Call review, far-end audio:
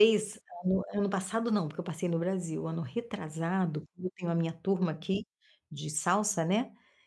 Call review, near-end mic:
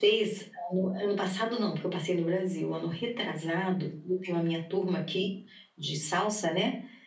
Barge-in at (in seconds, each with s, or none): none